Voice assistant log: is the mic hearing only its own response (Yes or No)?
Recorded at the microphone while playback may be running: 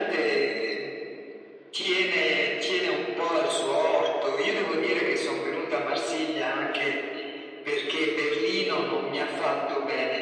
Yes